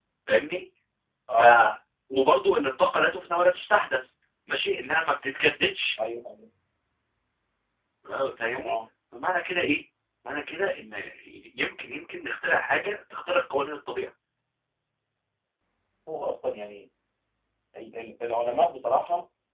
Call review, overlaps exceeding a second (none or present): none